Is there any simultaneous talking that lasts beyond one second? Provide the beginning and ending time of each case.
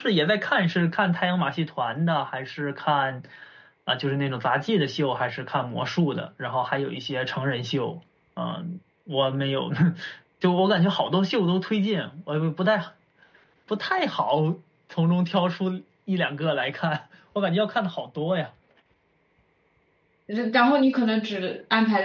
none

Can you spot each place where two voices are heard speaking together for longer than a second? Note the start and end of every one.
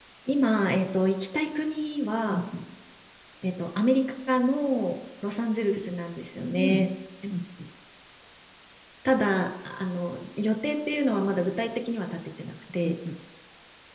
none

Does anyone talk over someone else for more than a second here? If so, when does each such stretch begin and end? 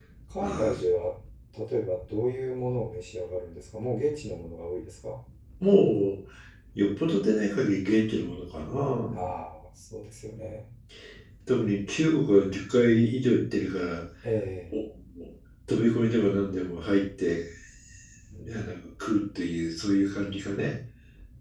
none

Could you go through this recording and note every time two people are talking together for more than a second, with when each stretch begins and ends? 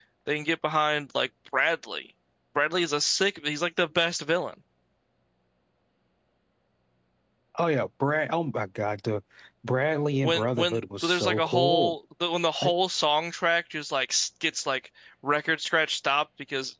10.2-11.9

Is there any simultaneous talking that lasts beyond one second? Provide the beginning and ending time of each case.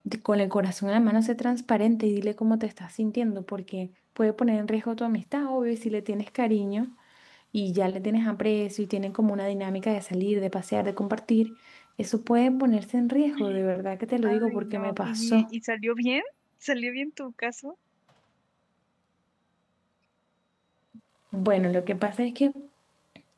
14.2-15.5

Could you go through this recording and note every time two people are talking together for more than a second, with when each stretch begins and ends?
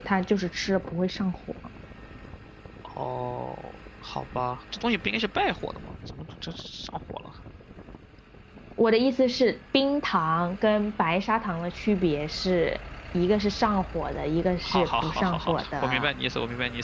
14.6-16.1

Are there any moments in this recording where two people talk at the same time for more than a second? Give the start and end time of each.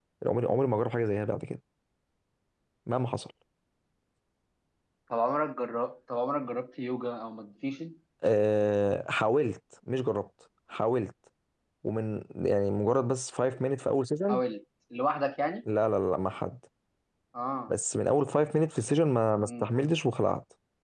none

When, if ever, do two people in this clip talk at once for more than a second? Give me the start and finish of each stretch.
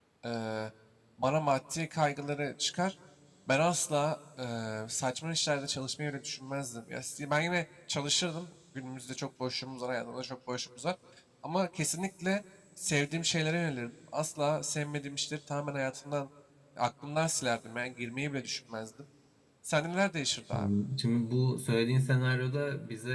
none

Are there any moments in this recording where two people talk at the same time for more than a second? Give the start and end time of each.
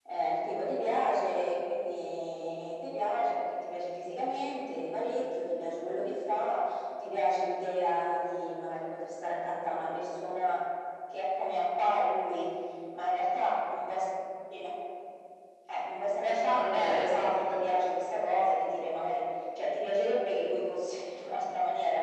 16.2-17.6

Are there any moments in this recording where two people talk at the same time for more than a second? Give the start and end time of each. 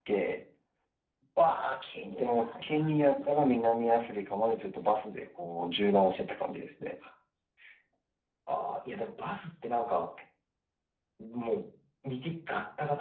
2.2-3.7

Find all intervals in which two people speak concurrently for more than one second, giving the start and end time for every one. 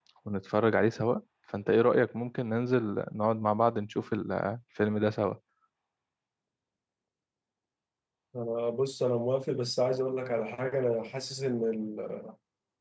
none

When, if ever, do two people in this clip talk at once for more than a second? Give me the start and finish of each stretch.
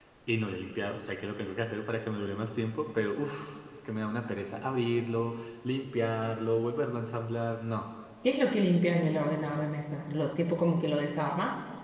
none

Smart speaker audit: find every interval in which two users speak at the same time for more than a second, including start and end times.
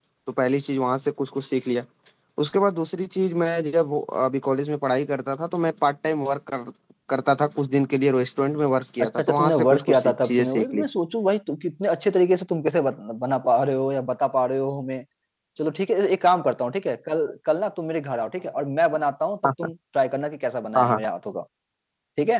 9.0-10.8

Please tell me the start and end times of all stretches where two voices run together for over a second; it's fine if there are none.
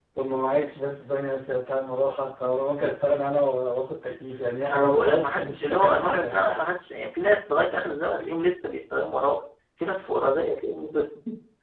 4.7-6.6

